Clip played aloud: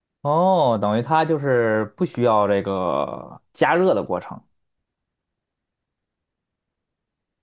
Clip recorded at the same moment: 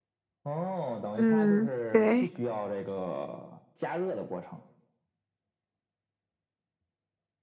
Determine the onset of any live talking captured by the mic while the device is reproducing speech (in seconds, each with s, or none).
1.1 s